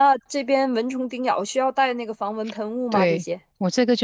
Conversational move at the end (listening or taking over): taking over